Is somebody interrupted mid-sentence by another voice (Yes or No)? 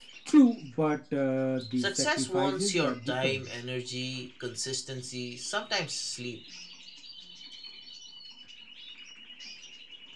Yes